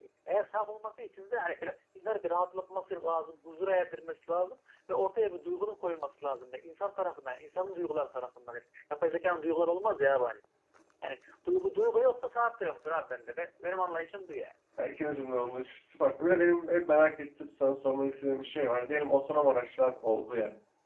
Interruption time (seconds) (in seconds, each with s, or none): none